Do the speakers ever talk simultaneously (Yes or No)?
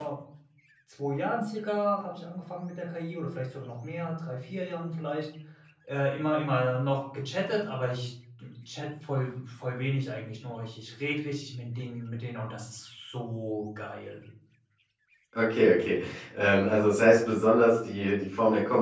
No